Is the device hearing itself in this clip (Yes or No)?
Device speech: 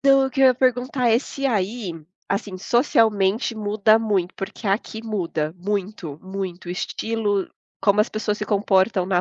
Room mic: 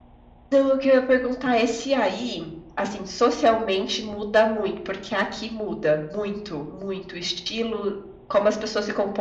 Yes